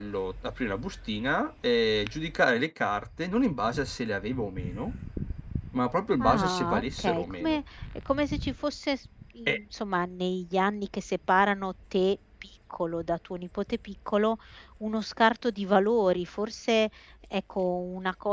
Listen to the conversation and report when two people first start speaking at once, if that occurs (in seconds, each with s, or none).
6.2 s